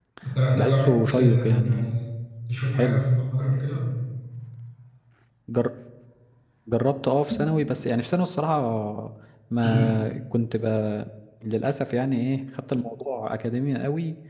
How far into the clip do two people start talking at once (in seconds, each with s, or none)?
0.5 s